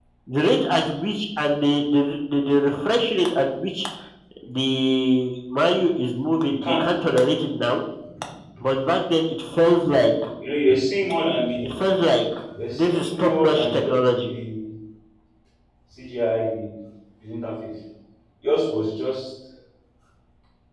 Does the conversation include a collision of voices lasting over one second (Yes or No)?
Yes